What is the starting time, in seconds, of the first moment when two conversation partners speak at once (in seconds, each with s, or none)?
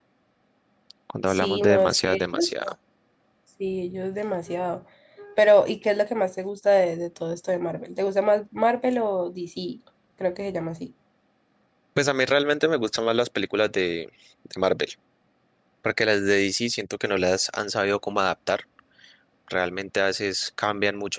1.3 s